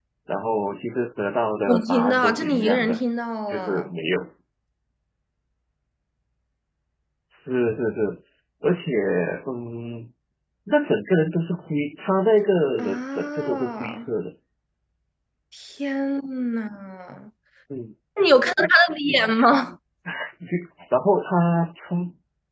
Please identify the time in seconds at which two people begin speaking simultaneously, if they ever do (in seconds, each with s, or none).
1.7 s